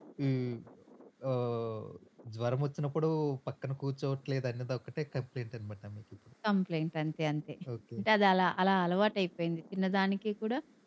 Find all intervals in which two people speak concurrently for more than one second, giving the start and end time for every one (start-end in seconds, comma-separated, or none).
none